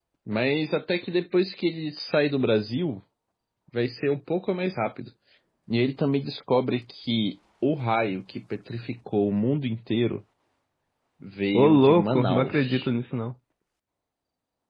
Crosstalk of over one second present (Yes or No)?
Yes